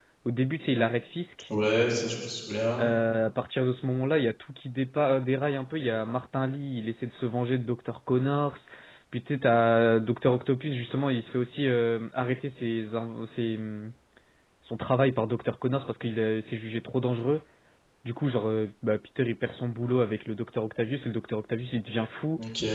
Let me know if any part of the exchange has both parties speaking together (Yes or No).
No